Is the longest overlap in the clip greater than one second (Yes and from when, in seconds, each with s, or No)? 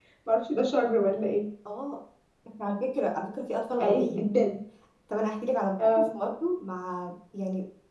No